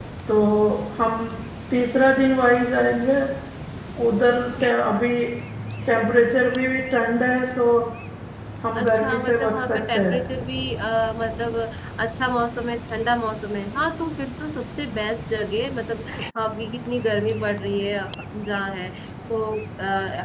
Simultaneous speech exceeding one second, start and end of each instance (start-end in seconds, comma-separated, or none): 8.8-10.2